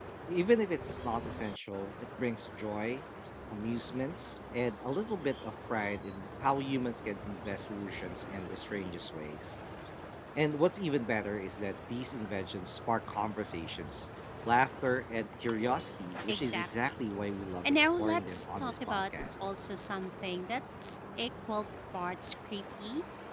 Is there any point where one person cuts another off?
Yes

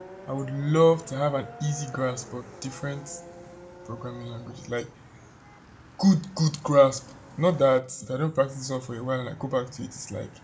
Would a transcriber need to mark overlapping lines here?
No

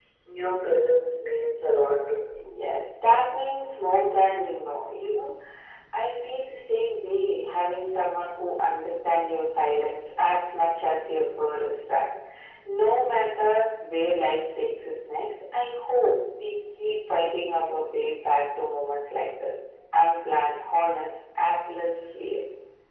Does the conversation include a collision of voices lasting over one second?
No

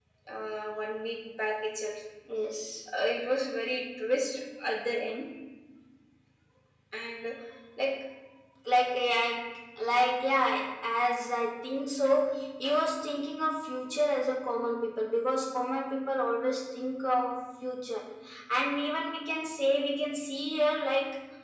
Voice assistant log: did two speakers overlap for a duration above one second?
No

